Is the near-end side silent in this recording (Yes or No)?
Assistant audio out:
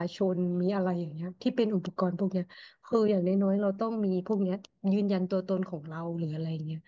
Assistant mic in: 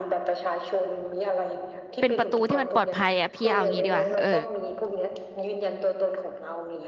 No